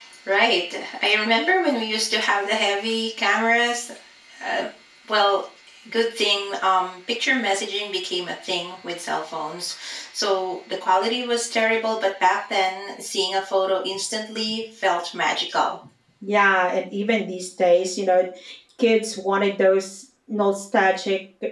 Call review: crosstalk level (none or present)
none